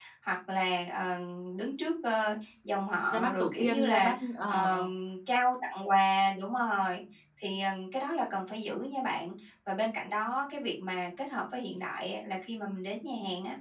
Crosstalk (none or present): present